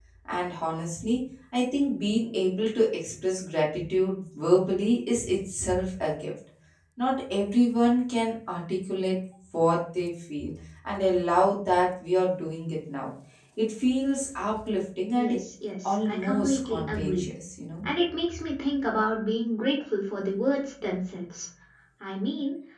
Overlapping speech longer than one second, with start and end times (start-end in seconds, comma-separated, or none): 15.8-17.2